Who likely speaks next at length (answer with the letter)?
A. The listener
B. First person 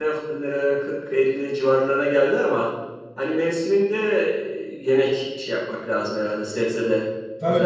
A